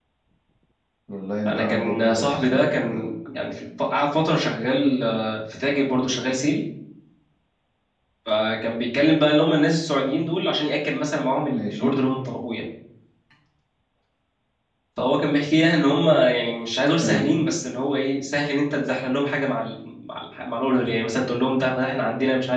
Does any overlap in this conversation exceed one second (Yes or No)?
Yes